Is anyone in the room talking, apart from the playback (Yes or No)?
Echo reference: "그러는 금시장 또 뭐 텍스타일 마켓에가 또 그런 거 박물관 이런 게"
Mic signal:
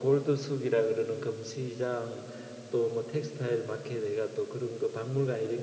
No